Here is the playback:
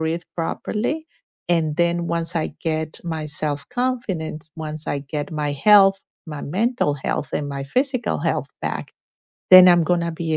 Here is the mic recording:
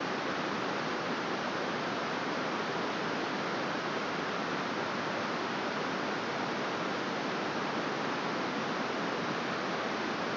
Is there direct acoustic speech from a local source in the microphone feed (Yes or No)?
No